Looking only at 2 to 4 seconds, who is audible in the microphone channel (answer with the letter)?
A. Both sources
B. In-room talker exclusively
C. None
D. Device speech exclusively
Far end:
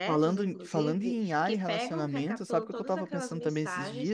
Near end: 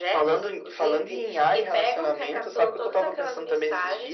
D